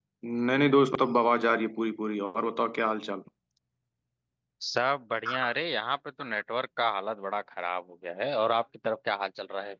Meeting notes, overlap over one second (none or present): none